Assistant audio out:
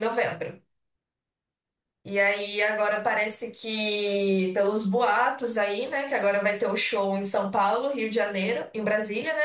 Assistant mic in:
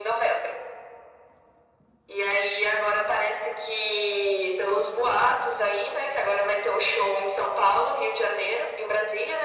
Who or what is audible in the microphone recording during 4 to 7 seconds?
echo only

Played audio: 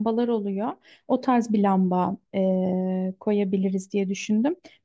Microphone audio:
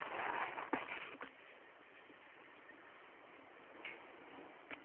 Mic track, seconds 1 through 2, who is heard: neither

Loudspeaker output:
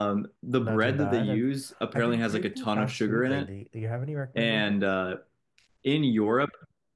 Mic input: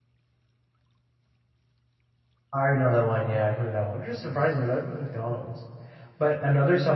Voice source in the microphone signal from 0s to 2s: neither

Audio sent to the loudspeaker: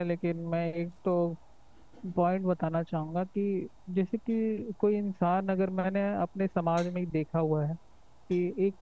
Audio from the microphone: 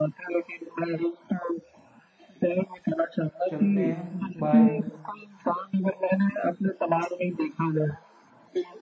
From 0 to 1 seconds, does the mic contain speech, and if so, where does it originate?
echo only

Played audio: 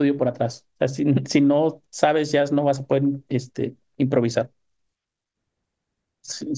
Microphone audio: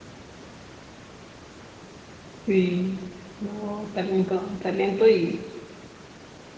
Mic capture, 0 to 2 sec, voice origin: neither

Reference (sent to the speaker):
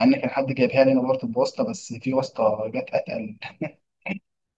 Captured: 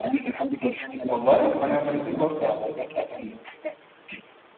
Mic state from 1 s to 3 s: both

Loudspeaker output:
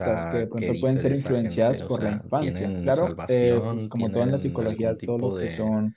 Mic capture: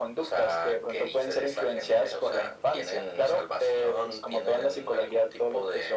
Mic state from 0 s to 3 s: echo only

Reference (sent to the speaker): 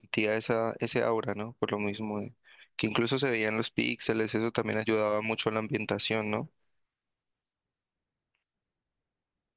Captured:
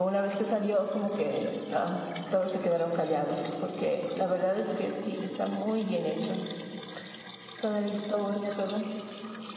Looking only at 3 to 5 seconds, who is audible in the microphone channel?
user only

